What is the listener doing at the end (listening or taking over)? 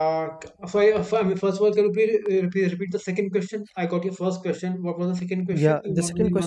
taking over